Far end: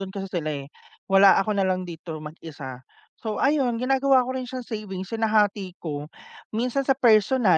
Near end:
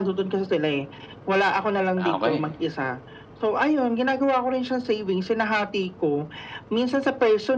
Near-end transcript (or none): ah, okey.